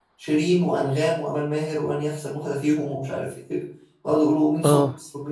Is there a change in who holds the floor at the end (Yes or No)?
No